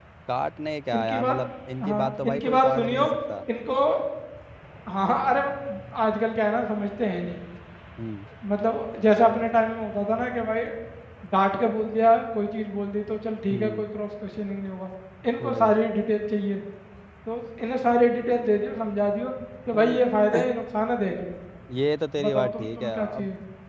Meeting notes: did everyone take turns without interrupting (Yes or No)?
No